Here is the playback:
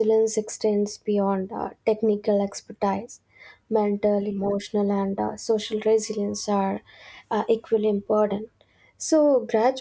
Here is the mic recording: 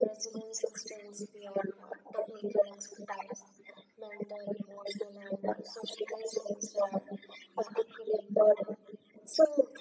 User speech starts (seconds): none

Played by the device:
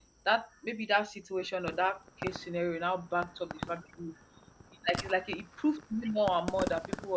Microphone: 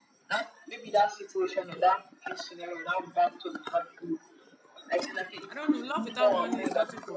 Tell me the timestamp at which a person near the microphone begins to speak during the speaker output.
5.5 s

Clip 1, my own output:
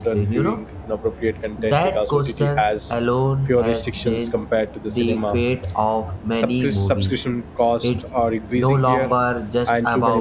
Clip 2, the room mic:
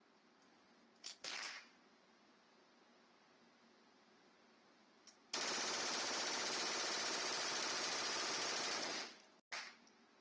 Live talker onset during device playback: none

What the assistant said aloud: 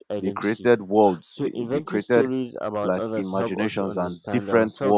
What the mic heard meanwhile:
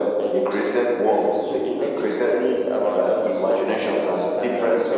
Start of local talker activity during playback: none

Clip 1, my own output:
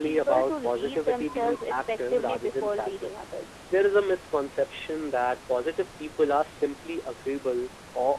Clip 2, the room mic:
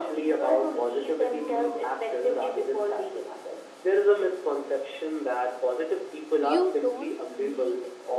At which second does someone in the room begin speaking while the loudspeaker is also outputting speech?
6.4 s

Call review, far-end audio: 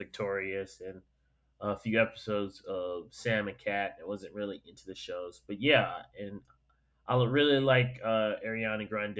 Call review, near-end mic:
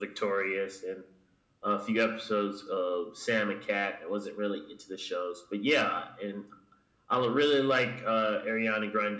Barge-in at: none

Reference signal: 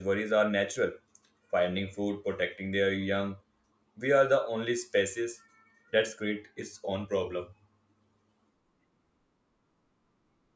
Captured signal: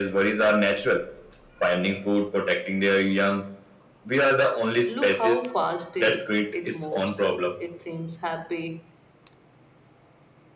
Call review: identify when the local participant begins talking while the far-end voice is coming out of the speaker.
4.8 s

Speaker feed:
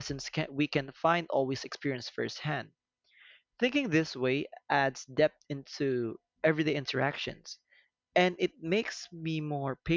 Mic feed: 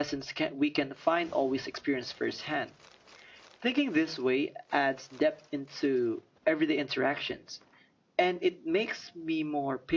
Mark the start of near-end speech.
none

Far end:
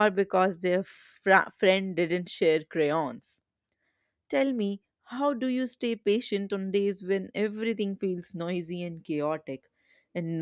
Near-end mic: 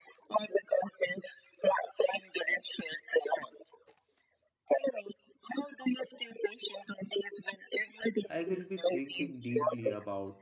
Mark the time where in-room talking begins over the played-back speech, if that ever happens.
8.2 s

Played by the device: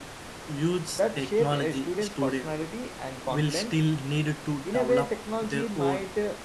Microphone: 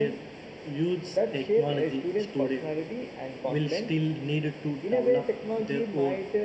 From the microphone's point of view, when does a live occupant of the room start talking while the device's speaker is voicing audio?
none

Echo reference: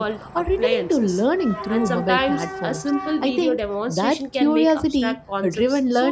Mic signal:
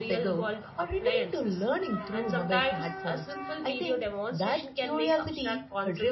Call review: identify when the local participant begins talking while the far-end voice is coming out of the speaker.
none

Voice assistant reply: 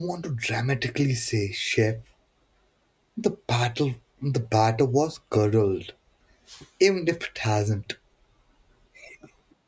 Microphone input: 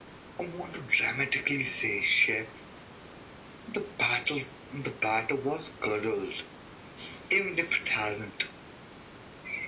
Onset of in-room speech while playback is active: none

